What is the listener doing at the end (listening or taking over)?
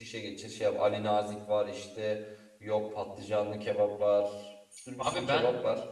taking over